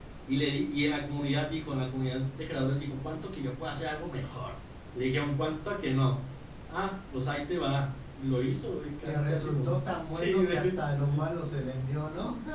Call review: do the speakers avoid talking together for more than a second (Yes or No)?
No